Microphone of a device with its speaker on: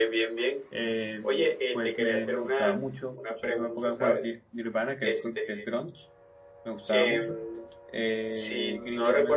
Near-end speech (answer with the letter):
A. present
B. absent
A